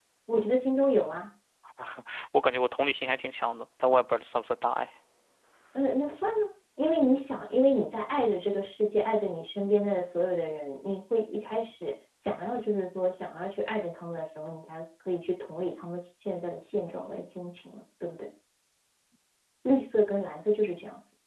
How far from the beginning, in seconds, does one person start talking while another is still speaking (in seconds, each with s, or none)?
none